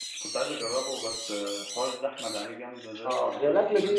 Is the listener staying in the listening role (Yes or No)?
No